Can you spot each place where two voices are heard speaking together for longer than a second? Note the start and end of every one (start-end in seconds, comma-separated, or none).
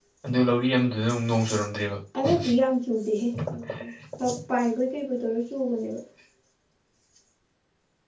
none